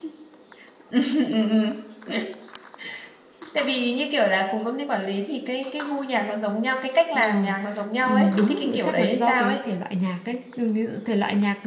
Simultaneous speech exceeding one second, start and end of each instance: 8.0-9.6

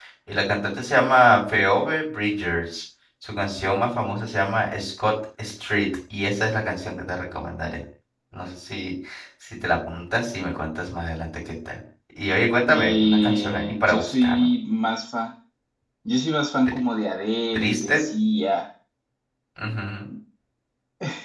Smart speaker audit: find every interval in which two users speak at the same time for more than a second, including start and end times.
12.7-14.5

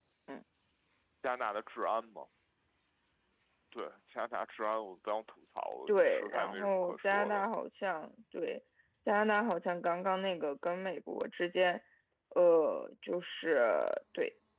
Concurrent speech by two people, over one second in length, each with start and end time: 5.9-7.4

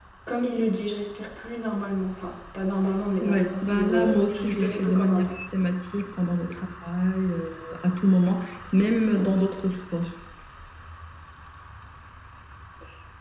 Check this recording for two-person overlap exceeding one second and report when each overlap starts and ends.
3.2-5.3

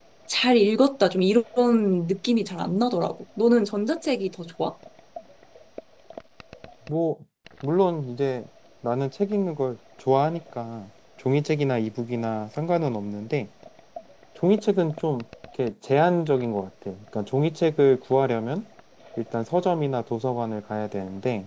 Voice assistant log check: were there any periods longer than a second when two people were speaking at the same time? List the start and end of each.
none

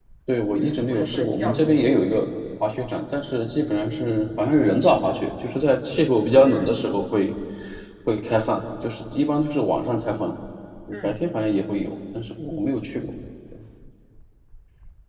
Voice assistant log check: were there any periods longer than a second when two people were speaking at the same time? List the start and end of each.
0.6-2.2

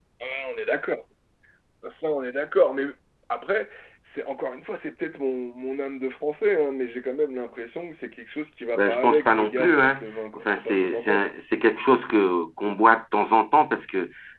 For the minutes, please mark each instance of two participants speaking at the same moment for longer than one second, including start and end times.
8.8-11.3

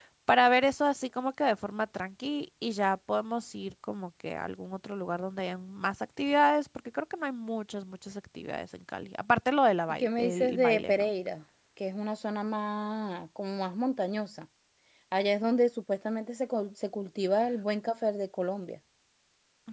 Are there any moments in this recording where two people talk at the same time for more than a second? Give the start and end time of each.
9.9-11.1

